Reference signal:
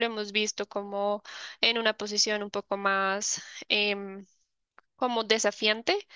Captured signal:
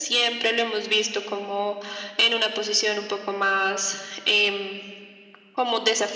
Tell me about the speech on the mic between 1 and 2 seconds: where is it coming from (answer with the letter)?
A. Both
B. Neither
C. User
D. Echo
D